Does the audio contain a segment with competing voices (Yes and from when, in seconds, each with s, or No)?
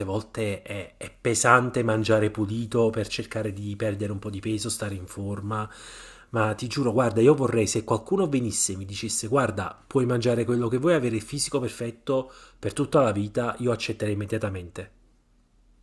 No